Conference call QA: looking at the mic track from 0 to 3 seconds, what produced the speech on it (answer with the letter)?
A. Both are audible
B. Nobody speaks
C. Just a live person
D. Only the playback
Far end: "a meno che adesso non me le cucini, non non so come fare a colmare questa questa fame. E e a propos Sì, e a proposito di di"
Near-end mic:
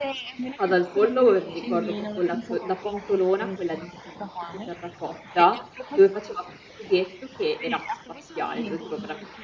A